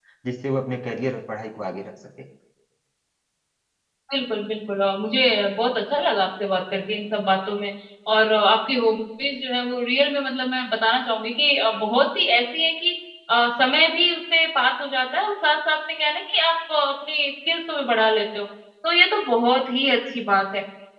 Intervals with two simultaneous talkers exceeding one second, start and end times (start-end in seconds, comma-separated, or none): none